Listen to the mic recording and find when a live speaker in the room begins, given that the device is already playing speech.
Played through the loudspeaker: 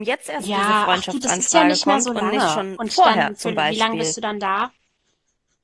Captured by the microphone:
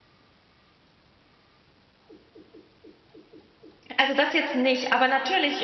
4.0 s

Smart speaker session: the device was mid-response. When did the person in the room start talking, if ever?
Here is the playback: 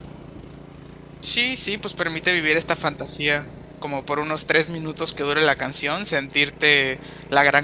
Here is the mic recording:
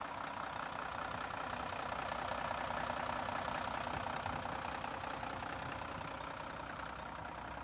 none

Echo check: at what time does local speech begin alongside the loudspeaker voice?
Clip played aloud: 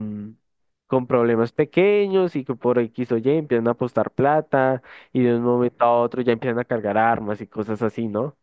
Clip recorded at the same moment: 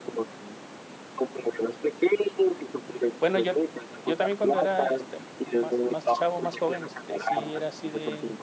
3.2 s

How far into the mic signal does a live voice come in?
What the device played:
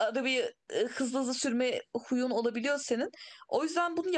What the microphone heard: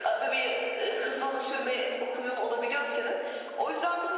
none

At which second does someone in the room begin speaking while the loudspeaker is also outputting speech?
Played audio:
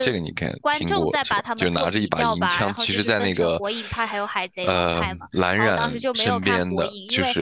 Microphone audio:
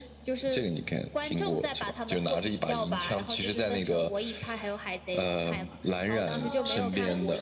6.4 s

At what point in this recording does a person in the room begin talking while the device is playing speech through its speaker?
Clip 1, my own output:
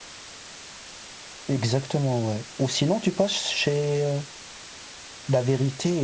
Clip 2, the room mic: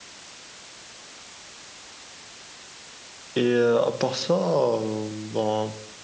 3.4 s

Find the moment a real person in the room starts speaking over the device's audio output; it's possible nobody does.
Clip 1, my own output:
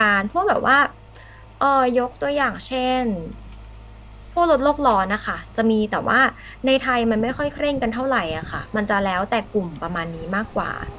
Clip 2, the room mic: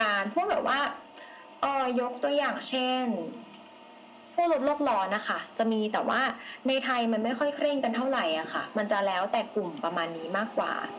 none

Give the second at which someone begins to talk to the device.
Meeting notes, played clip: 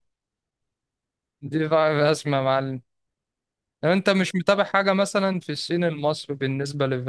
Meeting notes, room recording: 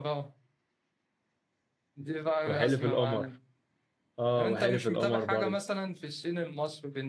2.5 s

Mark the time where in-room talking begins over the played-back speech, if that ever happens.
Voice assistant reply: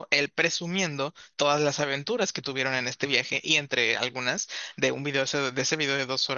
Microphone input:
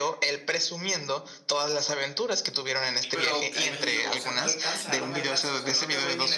3.0 s

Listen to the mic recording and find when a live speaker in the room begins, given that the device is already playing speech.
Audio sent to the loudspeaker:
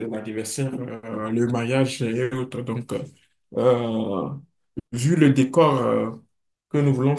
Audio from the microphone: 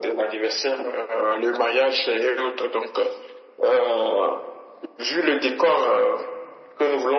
none

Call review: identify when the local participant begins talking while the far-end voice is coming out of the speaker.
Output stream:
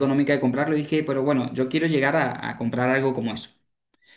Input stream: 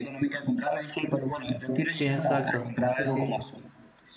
1.9 s

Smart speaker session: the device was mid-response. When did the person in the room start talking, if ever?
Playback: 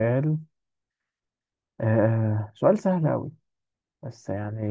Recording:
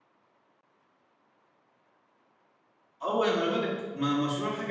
3.0 s

